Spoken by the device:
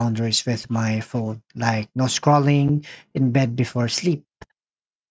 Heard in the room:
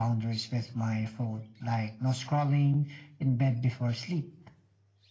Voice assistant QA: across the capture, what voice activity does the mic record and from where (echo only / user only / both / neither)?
echo only